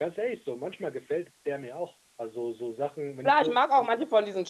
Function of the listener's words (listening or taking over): taking over